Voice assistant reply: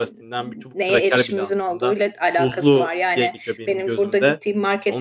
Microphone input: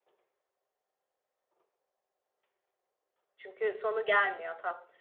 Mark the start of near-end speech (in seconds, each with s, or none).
3.4 s